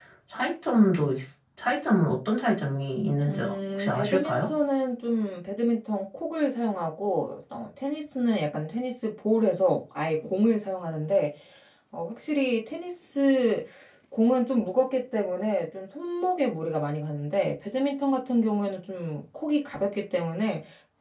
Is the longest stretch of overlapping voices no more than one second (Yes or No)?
No